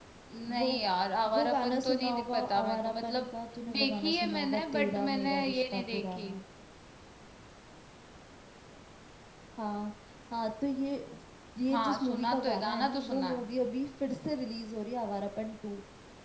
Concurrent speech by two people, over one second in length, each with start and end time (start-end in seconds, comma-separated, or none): 1.3-3.2, 3.8-6.3, 11.7-13.4